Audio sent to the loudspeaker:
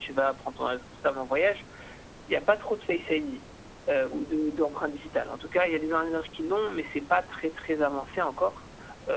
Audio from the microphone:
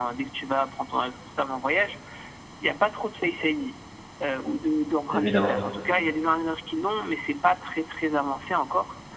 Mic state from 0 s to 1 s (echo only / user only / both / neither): echo only